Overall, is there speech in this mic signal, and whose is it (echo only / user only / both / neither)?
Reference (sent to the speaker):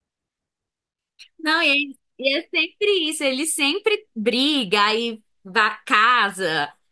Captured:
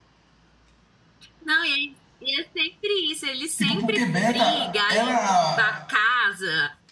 both